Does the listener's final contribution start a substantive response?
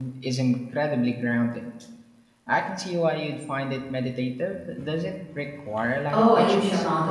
Yes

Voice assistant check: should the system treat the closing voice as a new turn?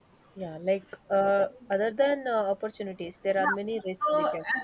Yes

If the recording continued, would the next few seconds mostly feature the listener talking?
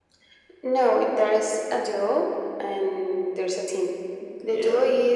No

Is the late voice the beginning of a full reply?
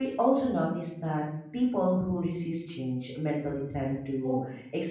No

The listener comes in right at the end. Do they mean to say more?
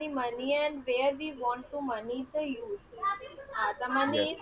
No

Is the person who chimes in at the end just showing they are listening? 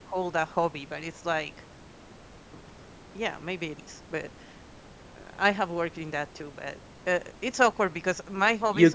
No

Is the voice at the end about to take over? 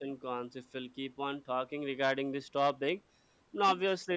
No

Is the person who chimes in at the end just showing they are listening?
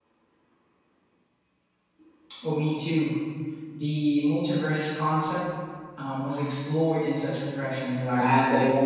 No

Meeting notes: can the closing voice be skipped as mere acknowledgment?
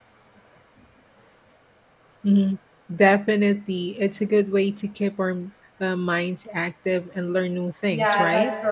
No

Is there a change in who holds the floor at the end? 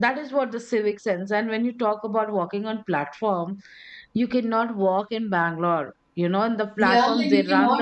Yes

